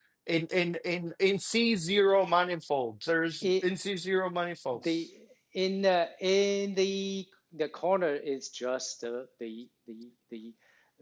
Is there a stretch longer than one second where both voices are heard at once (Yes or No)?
No